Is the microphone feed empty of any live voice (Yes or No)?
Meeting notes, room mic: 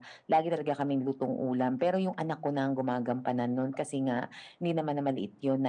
Yes